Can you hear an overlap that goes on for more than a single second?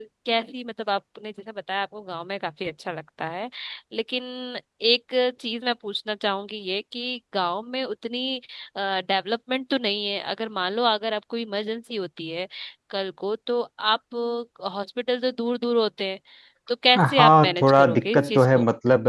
Yes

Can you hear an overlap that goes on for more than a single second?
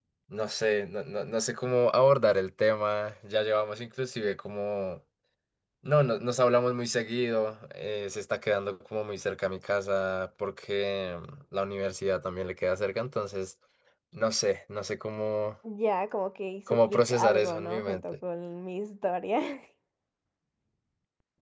Yes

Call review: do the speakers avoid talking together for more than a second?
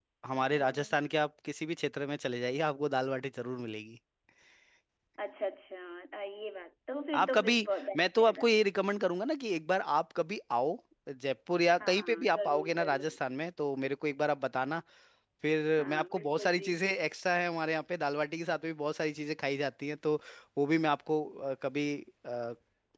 No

